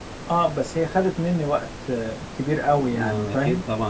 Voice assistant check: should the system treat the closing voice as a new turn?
Yes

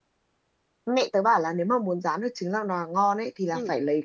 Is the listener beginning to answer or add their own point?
No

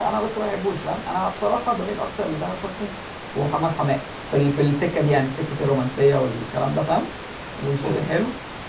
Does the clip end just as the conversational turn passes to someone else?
No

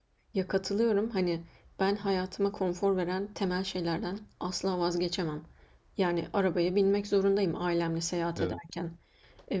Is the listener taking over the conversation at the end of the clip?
No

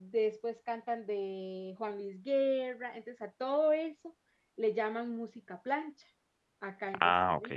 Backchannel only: Yes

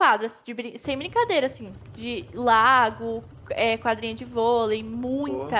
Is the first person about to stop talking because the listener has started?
No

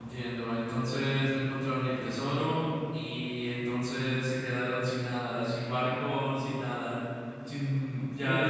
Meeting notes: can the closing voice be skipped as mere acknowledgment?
No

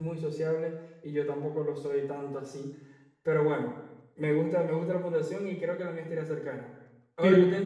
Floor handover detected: Yes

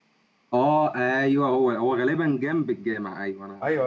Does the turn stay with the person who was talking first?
No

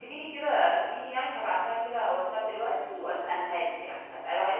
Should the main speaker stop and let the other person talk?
No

